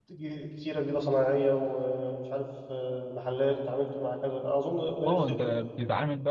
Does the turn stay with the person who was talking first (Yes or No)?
No